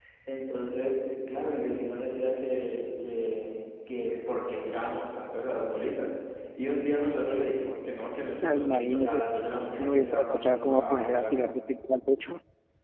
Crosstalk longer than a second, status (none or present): present